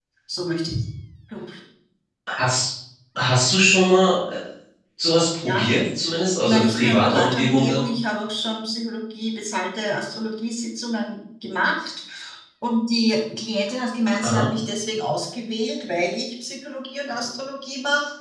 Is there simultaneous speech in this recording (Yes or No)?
Yes